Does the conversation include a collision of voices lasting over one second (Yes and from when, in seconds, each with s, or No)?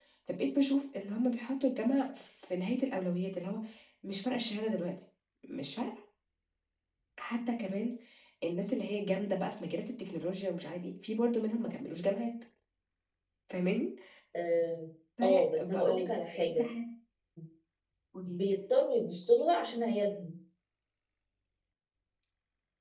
Yes, from 15.2 s